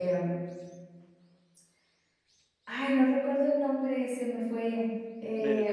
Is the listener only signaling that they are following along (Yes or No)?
Yes